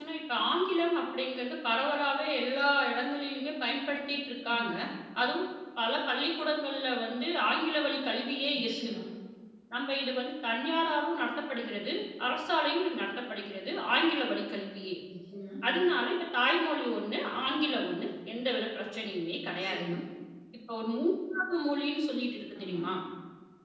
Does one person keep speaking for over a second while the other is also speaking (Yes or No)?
No